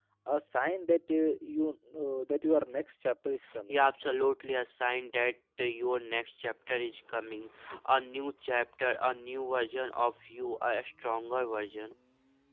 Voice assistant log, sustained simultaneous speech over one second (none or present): none